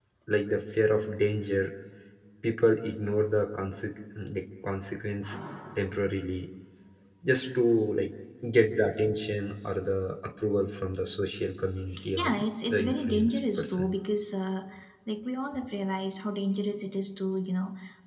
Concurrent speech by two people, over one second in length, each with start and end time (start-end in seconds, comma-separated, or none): 12.7-13.9